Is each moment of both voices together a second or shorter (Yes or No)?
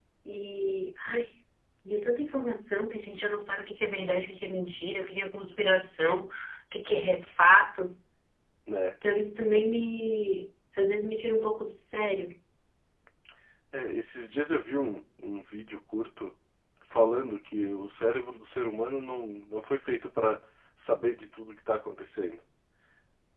Yes